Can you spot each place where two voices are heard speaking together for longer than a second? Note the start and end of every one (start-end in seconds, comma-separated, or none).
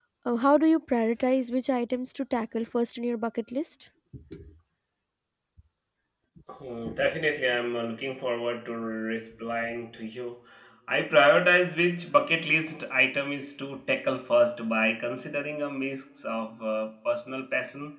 none